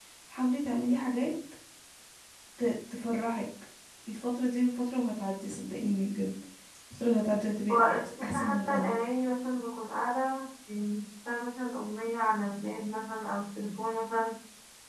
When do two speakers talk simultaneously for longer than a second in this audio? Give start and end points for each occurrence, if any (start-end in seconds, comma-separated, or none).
7.7-9.0